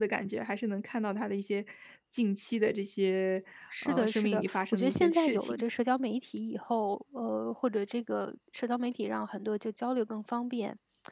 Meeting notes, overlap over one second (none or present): present